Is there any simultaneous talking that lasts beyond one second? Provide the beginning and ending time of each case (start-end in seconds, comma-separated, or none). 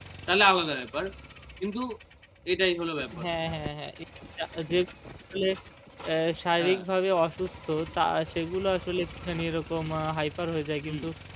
none